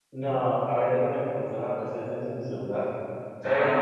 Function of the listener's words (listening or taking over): listening